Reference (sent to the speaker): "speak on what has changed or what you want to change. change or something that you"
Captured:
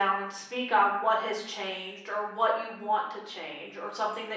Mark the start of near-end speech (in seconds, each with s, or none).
none